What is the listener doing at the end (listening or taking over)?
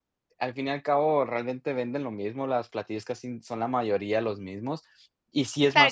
taking over